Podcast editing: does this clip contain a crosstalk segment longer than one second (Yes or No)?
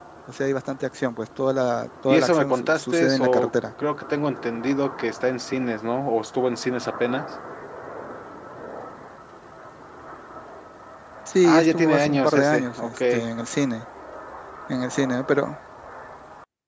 Yes